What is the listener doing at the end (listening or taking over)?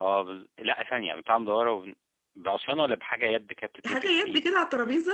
taking over